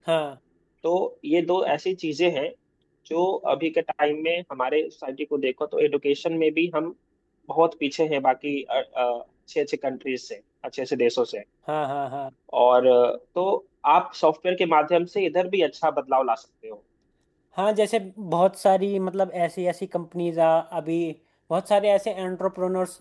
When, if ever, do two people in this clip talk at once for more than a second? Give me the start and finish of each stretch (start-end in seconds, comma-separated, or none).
none